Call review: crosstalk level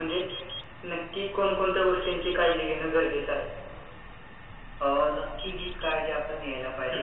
none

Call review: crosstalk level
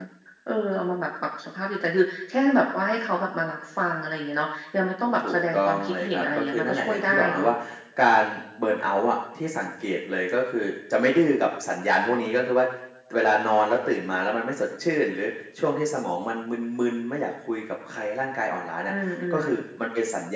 present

